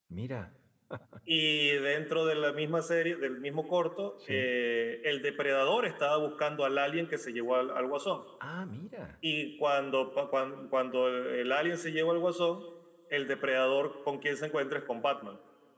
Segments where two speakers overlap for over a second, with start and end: none

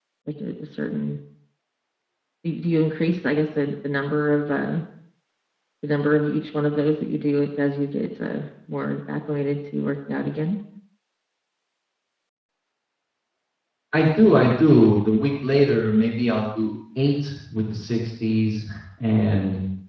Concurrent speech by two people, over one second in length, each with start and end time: none

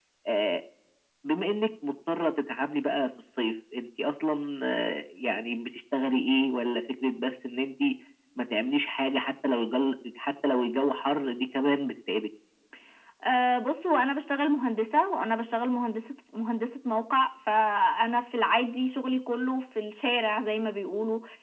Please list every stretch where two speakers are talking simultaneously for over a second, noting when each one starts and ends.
none

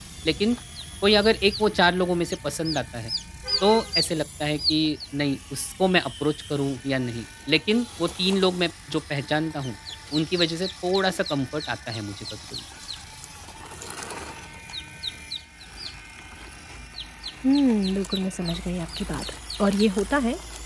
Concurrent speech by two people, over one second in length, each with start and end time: none

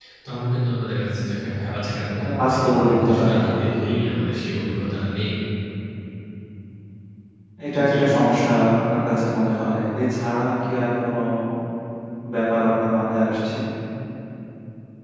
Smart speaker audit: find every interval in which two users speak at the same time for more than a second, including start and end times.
2.2-3.4

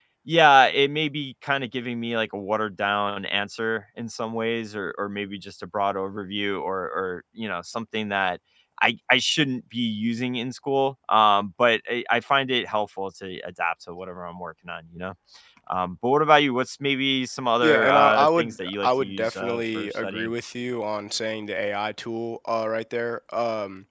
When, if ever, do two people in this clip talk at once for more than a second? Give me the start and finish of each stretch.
17.6-20.3

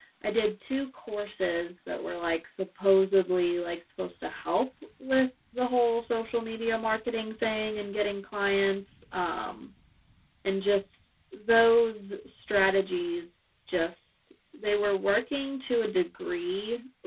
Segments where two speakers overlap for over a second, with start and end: none

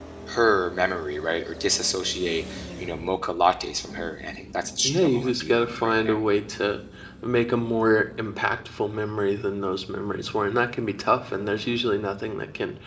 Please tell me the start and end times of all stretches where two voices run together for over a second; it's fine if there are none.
4.8-6.2

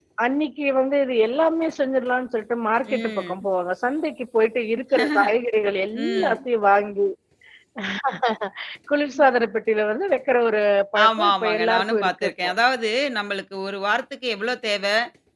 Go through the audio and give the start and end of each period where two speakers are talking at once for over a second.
11.0-12.5

